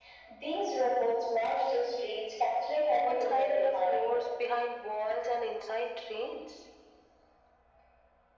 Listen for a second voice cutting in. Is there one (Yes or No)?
Yes